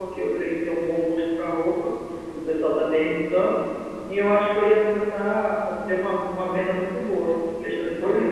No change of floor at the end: No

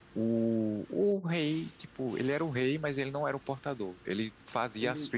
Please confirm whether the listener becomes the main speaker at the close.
No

